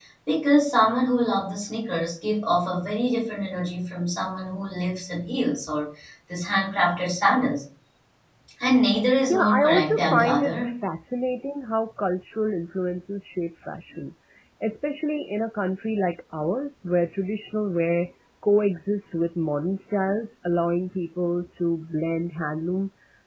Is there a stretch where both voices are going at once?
Yes, from 9.3 s

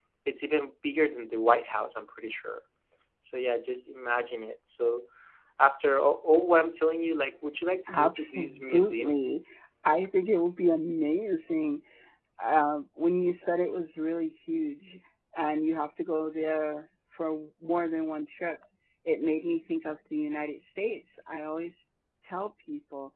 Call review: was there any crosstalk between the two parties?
Yes, from 7.9 s

